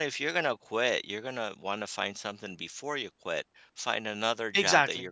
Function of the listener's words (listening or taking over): listening